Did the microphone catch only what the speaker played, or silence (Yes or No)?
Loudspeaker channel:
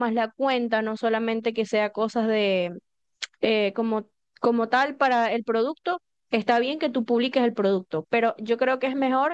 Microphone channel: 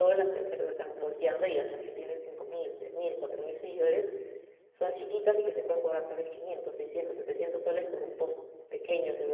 No